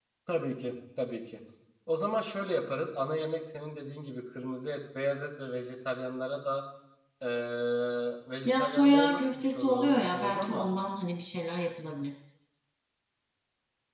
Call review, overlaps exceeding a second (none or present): present